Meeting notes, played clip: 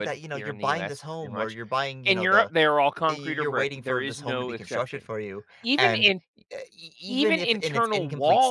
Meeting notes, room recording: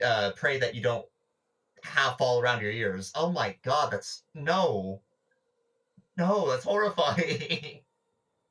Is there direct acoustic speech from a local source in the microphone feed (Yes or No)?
Yes